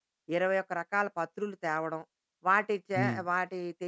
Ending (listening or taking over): listening